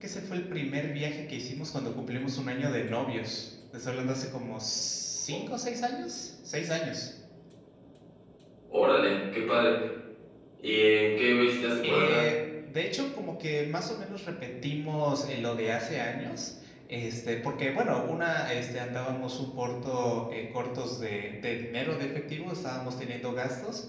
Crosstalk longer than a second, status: none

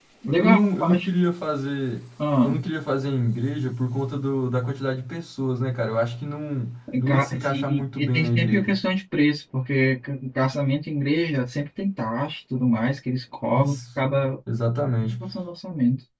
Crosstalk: present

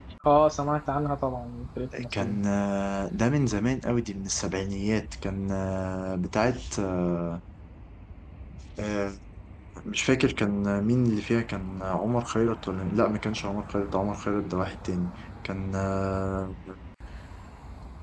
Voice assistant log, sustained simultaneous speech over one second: none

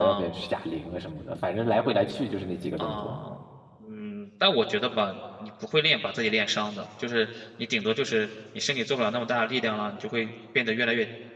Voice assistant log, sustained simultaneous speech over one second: none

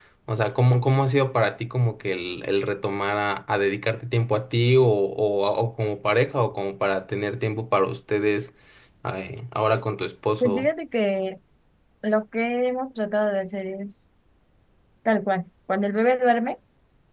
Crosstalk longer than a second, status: none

